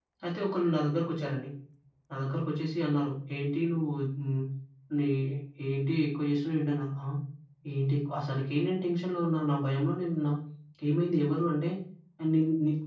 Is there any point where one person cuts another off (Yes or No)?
No